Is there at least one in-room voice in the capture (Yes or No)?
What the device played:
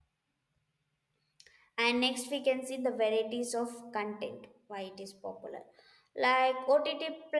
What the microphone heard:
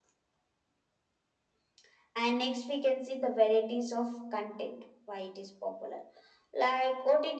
No